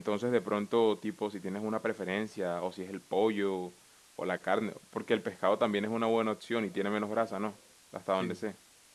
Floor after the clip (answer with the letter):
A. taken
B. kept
A